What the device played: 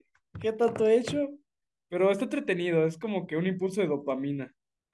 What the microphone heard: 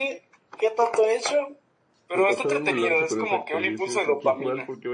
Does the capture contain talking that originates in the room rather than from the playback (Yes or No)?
Yes